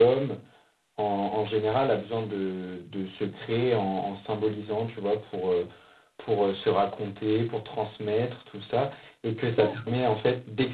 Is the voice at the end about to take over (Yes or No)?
No